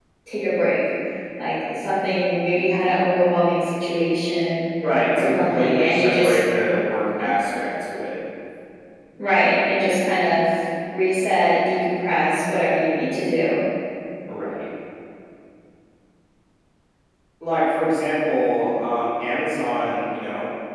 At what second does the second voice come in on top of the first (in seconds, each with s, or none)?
5.1 s